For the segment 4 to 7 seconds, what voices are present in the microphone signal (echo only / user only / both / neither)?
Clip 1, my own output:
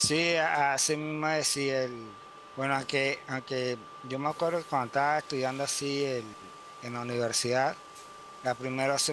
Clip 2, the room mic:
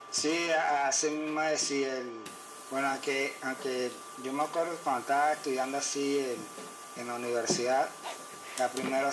echo only